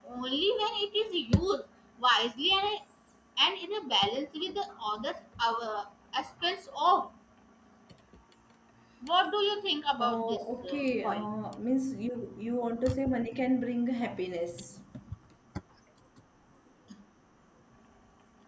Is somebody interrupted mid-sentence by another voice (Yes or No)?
Yes